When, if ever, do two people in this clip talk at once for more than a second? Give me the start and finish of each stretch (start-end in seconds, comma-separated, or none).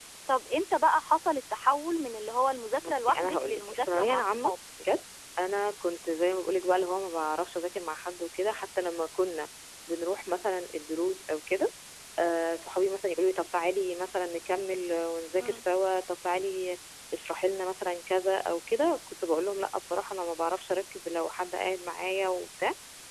2.8-4.5